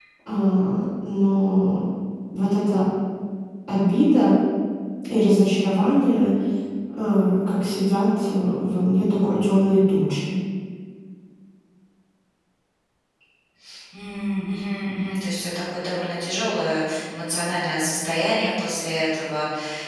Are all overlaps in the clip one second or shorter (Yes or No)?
Yes